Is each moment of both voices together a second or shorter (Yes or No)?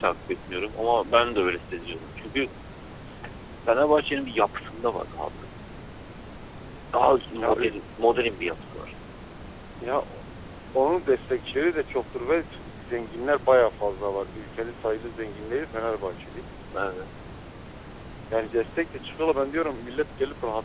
Yes